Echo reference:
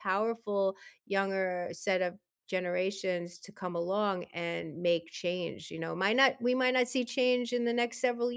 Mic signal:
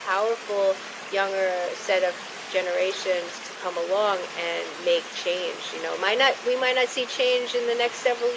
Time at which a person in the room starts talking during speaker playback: none

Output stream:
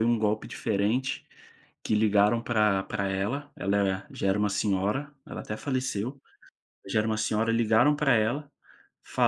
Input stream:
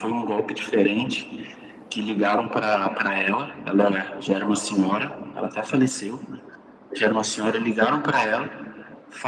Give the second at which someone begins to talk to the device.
none

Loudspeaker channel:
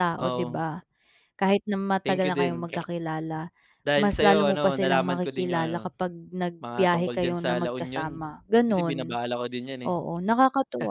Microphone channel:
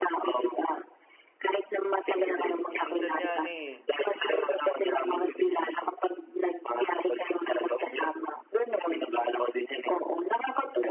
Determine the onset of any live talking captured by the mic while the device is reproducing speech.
2 s

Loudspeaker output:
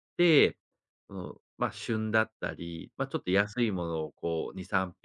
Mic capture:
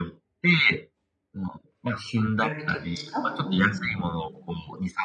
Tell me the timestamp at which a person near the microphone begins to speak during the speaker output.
2 s

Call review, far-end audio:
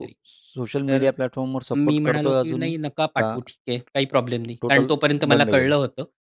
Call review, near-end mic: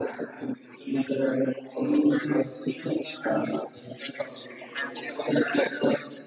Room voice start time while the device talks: none

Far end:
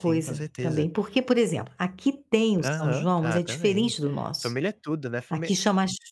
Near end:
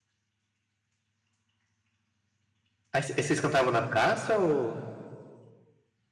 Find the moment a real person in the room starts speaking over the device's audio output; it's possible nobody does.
3 s

